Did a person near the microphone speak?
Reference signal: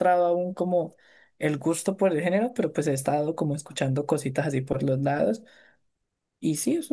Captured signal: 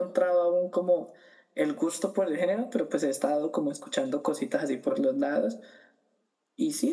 No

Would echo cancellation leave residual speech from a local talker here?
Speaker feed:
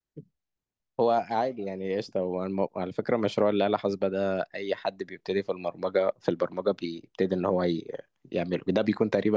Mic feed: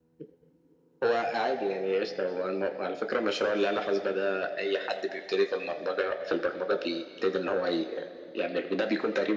No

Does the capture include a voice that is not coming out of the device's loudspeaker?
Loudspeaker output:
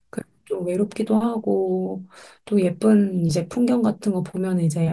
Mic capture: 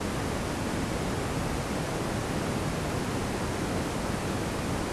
No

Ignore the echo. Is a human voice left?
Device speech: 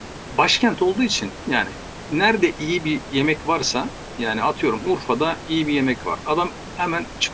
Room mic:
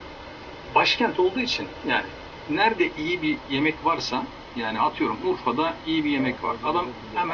Yes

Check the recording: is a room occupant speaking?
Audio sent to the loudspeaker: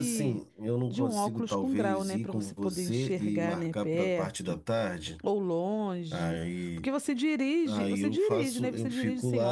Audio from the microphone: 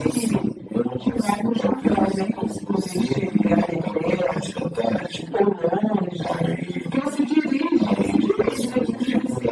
No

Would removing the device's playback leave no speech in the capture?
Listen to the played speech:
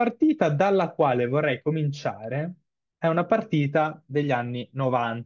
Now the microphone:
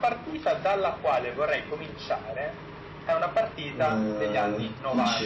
No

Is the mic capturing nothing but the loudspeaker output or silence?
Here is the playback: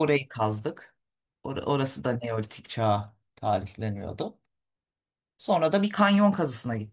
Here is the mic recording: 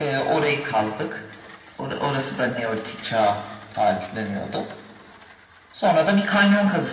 Yes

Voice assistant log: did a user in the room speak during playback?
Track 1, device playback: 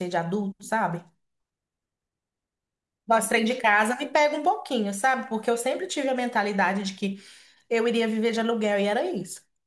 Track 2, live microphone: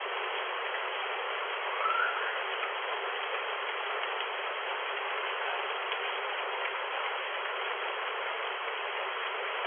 No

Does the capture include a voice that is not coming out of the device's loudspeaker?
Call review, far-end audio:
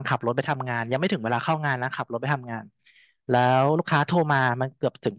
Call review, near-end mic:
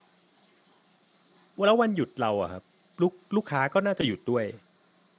Yes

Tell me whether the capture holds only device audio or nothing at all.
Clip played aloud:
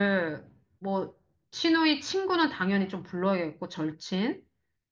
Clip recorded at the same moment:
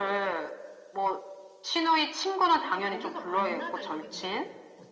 No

